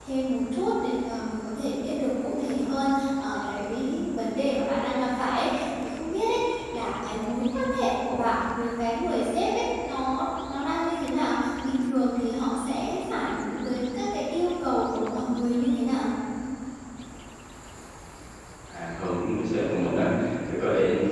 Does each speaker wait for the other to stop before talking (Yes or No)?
Yes